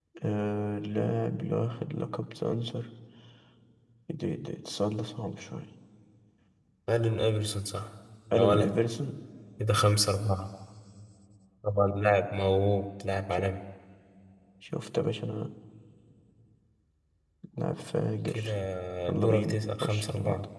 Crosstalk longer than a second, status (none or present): present